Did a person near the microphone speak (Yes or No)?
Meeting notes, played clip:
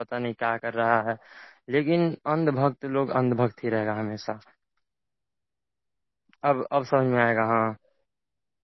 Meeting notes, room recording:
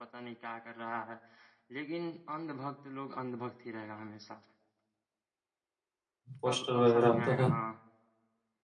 Yes